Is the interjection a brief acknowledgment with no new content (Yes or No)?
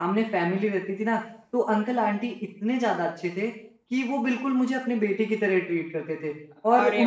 Yes